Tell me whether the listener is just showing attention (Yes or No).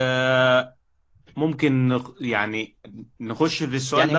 No